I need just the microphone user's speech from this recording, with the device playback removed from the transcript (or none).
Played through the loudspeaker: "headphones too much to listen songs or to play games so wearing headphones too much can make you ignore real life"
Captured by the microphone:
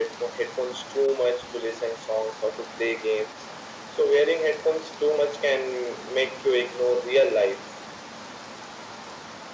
none